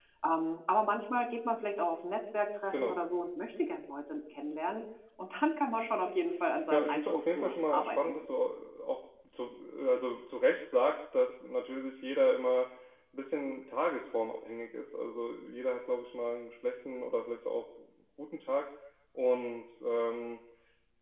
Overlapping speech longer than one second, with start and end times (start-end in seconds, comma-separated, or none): 6.7-8.2